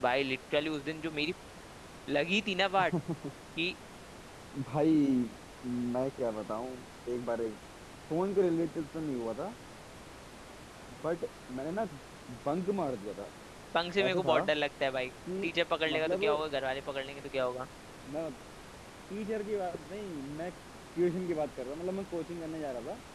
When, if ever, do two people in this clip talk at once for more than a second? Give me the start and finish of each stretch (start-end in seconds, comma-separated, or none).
none